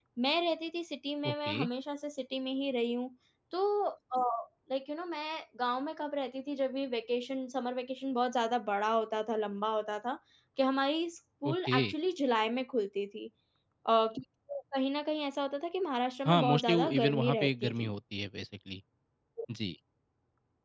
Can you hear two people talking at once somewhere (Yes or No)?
Yes